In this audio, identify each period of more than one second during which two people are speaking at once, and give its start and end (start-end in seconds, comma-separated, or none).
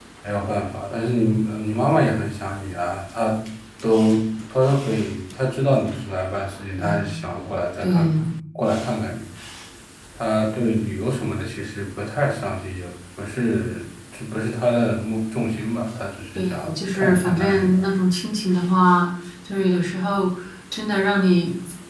16.4-17.9